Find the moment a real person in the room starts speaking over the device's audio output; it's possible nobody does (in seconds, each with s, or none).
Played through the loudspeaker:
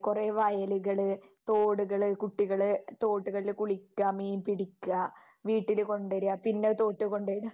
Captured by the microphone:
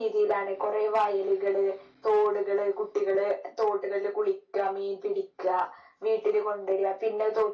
none